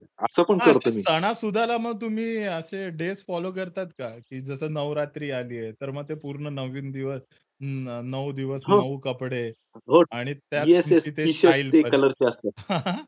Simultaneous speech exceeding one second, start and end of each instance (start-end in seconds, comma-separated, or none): 10.7-12.0